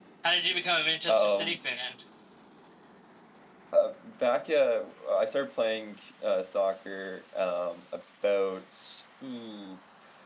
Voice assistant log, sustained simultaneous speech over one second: none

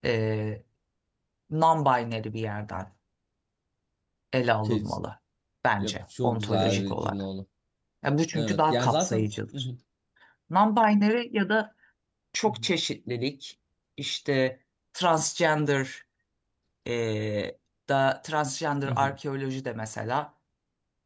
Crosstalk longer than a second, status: present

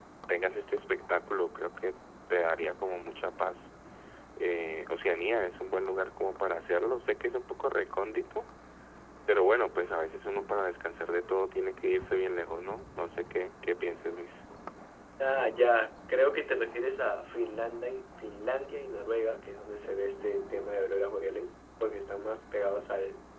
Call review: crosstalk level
none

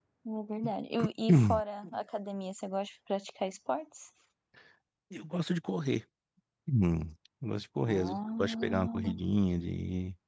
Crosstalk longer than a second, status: present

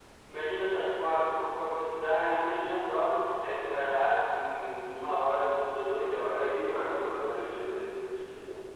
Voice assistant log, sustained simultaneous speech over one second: present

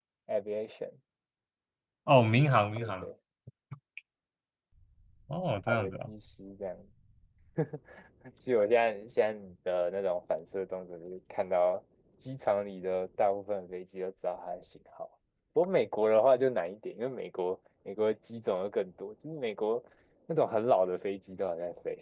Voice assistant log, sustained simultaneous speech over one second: none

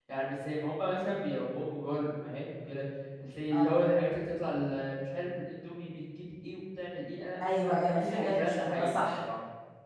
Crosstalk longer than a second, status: present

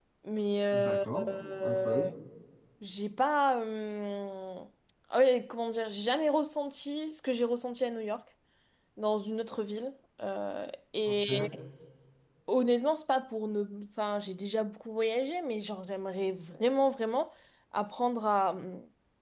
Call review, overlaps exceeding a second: present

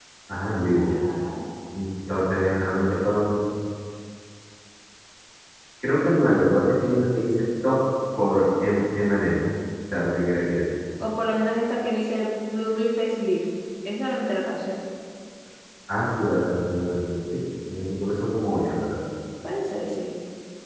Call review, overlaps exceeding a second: none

